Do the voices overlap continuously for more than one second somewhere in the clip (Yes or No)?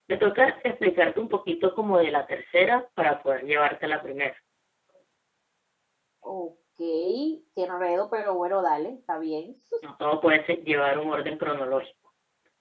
No